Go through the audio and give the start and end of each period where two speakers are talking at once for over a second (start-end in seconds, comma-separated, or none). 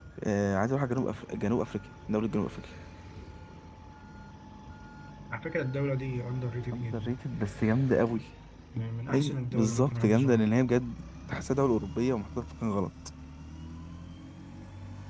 9.1-10.5